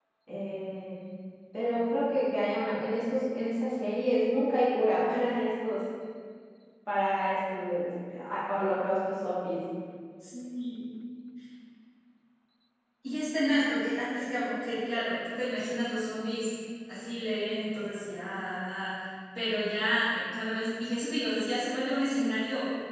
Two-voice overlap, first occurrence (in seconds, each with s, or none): none